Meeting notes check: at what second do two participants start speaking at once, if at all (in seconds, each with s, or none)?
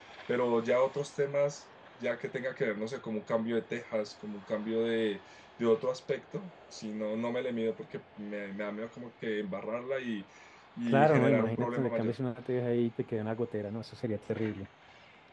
10.9 s